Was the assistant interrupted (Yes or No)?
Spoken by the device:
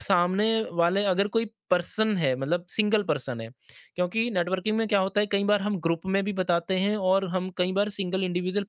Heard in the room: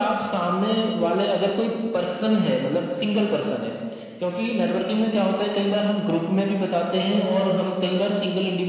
No